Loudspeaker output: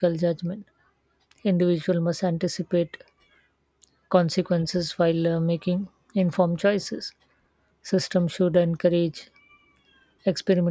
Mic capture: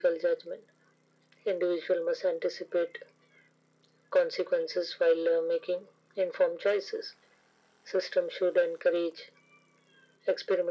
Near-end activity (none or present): none